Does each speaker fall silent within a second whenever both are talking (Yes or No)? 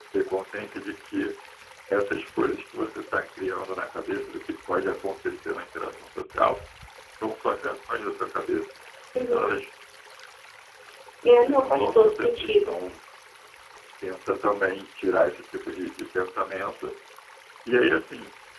No